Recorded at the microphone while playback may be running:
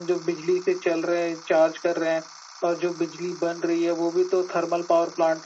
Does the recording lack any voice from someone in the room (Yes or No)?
Yes